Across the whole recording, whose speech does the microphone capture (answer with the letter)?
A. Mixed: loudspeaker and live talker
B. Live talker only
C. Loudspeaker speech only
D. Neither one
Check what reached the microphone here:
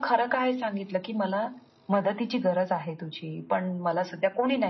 C